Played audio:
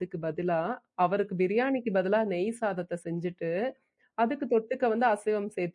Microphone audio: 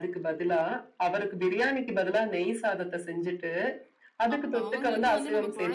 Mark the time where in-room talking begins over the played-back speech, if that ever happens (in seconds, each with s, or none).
4.3 s